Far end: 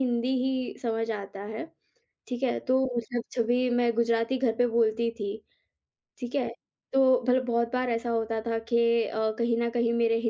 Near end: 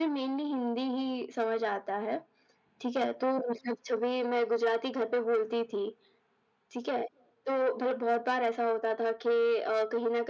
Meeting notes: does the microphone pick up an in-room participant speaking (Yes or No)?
No